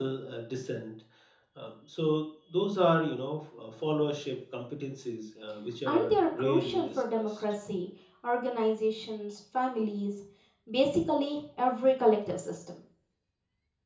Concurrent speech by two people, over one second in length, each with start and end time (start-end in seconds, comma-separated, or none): 5.9-7.4